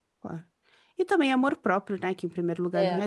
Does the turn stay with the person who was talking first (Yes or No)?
Yes